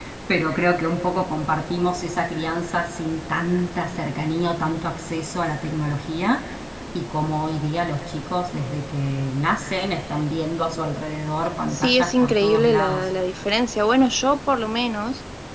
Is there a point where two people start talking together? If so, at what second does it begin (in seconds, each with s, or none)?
11.7 s